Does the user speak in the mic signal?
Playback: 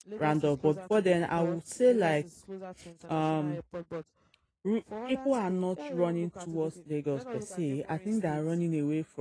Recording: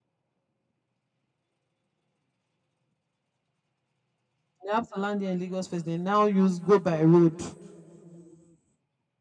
Yes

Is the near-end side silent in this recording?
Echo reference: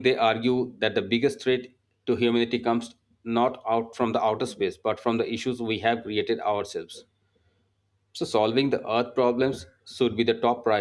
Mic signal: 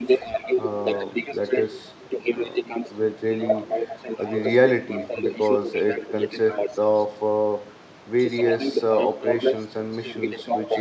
No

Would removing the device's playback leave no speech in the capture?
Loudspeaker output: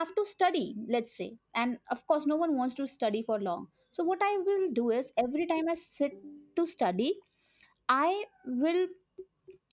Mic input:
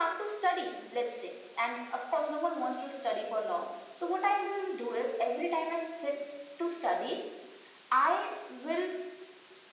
Yes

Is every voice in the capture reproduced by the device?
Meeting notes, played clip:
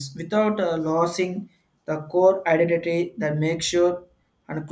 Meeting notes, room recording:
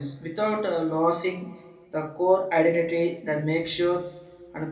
Yes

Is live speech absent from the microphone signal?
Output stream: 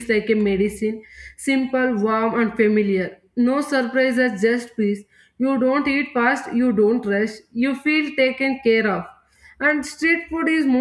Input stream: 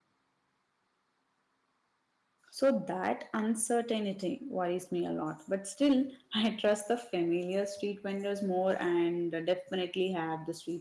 No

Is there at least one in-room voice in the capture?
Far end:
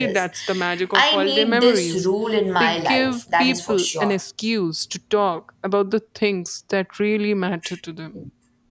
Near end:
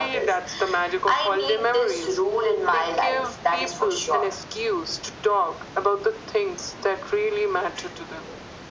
No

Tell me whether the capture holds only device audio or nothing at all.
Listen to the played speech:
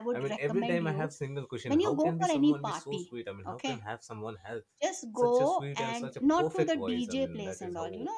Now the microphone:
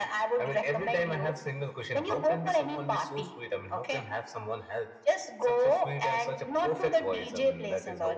Yes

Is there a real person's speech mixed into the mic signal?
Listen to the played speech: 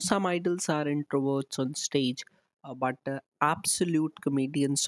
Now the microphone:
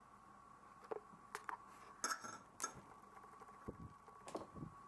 No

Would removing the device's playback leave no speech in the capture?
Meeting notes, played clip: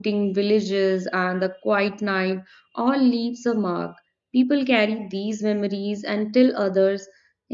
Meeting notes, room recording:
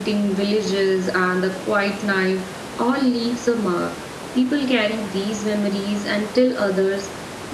Yes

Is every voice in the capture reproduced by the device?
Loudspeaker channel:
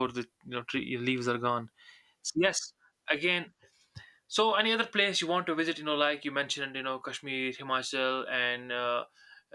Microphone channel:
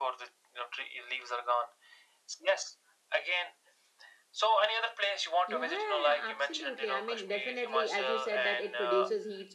No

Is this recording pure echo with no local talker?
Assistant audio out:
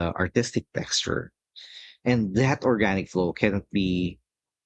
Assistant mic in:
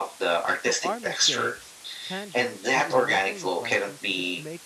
No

